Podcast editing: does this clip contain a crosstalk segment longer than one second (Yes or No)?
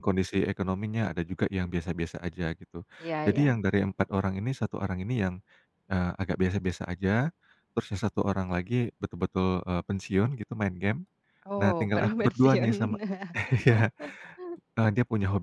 Yes